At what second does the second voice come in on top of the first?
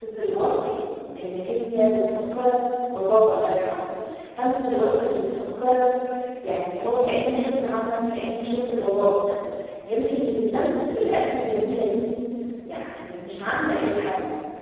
none

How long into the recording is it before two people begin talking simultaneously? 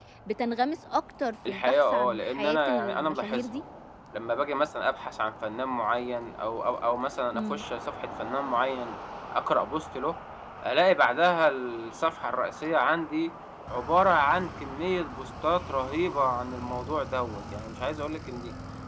1.5 s

